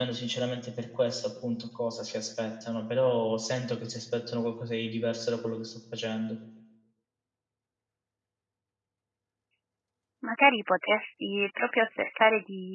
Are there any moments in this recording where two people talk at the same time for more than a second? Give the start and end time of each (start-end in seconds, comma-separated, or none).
none